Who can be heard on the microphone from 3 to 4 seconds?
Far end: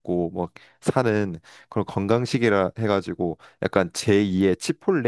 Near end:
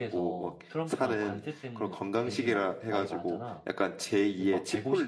both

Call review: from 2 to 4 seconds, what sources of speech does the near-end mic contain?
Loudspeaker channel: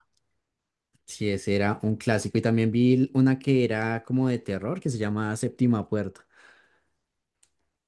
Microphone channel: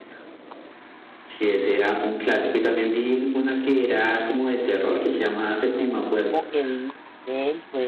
echo only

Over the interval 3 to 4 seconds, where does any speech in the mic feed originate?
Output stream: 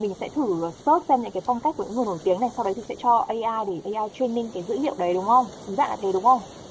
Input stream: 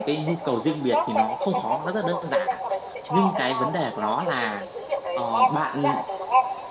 both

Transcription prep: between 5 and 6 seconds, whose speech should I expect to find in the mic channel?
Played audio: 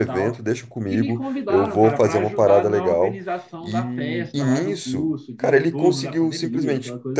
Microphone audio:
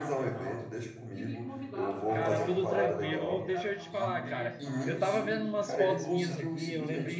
both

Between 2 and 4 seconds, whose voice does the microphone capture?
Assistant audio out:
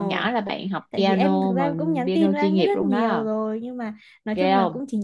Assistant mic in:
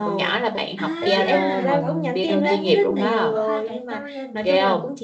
both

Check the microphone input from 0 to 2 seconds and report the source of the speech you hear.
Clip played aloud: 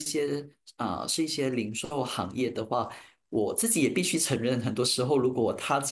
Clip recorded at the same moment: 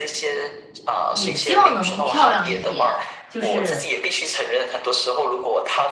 both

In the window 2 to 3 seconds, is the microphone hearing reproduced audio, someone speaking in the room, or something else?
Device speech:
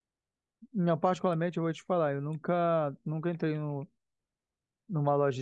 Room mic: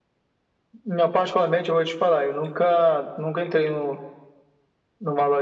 echo only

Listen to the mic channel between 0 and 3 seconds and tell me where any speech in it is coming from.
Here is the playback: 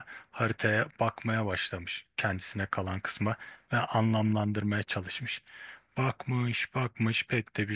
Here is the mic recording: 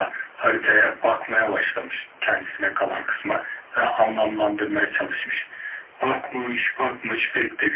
echo only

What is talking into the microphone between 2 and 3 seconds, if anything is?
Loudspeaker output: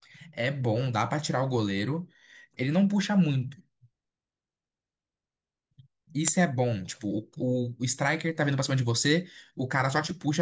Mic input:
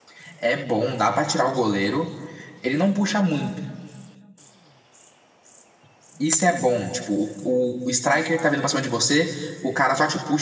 echo only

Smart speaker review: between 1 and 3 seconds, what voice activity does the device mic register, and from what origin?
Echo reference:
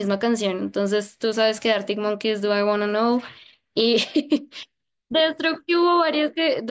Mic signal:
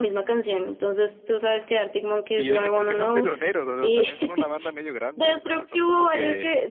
both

